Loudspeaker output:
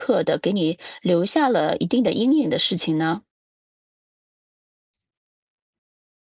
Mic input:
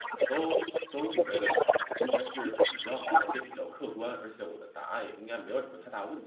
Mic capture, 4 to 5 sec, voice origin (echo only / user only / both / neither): user only